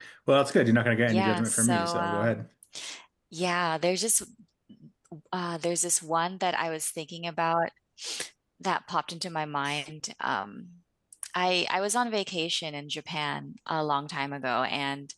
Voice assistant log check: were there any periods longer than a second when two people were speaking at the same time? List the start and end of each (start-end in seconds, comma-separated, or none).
1.0-2.4